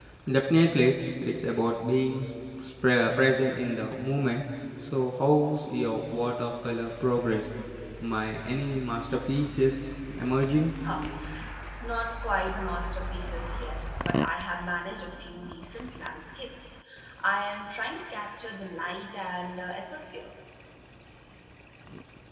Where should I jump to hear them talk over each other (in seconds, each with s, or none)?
none